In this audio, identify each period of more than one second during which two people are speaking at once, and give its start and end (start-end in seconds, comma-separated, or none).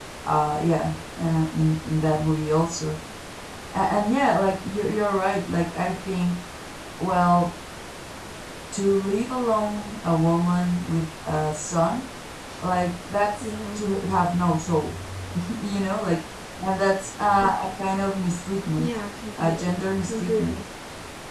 19.4-20.6